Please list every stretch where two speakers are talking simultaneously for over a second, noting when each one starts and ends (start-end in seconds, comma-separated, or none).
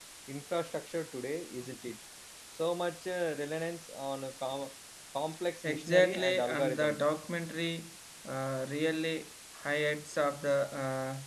5.6-7.0